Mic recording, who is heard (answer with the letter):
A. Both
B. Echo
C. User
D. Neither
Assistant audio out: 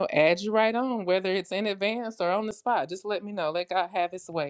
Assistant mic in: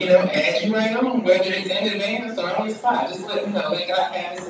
B